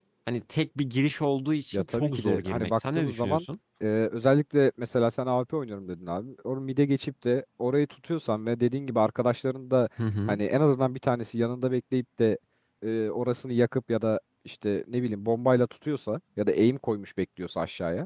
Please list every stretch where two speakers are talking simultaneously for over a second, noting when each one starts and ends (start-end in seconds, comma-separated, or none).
1.7-3.4